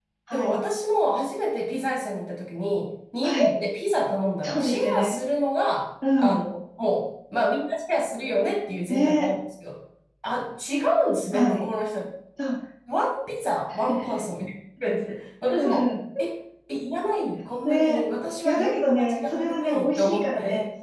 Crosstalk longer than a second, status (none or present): present